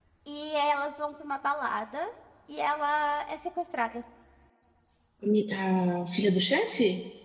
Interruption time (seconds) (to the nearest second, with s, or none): none